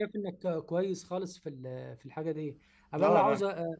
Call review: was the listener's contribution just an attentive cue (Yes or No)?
Yes